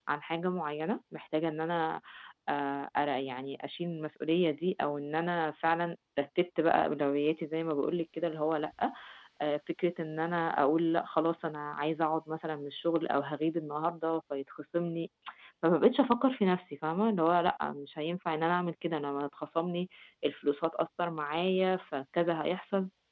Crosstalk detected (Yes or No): No